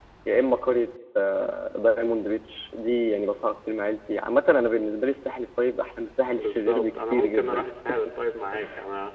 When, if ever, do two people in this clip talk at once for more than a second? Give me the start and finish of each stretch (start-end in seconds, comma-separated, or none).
6.3-7.7